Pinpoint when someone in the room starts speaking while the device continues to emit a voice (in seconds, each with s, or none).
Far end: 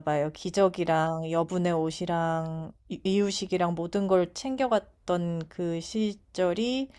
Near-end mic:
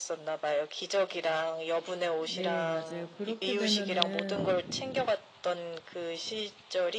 2.2 s